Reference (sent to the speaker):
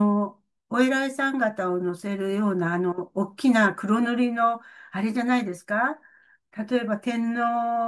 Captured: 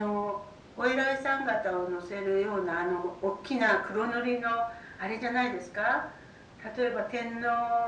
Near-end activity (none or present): none